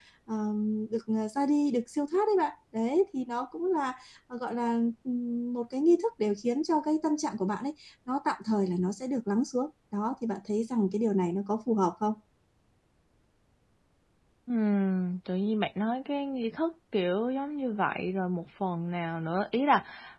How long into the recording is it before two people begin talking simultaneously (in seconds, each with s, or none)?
none